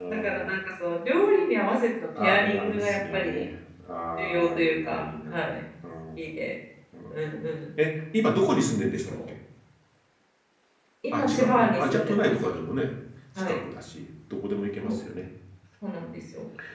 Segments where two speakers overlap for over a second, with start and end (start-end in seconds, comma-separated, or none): 2.2-3.5, 4.2-5.5, 11.1-12.5